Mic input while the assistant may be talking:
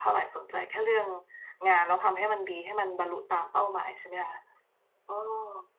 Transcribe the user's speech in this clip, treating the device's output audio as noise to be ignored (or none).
none